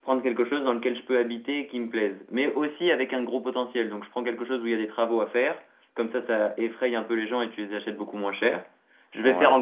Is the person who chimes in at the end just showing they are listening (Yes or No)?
Yes